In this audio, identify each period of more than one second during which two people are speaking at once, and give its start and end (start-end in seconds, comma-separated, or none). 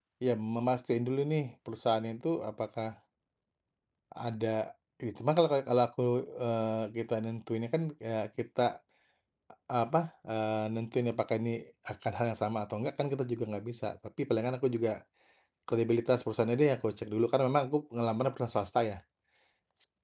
none